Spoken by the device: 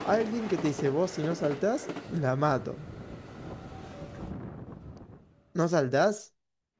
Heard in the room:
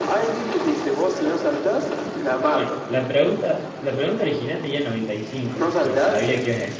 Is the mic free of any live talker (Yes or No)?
No